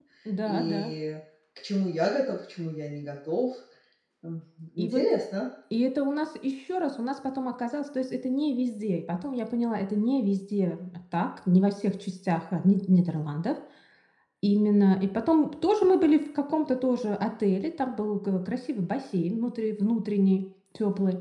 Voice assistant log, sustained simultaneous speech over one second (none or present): none